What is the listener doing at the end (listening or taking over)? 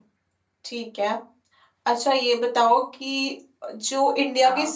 listening